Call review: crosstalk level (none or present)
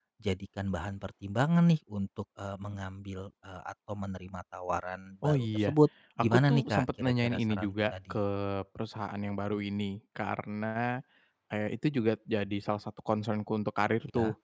present